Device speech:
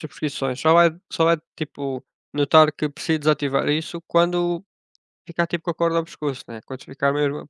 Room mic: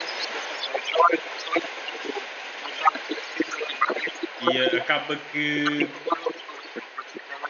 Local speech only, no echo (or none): E, eh, acaba que,